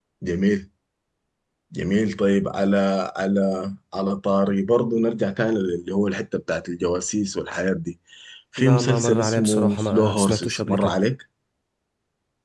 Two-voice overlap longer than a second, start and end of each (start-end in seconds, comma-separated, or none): 8.6-10.9